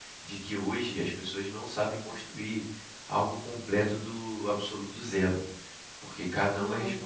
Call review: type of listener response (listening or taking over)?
listening